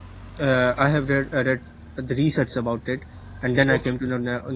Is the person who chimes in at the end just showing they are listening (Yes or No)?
Yes